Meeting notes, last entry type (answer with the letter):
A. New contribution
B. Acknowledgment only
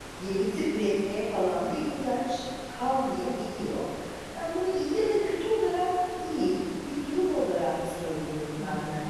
A